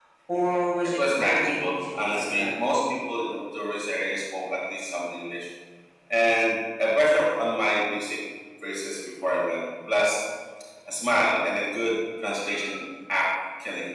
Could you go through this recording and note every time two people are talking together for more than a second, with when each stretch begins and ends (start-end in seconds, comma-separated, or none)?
0.8-2.7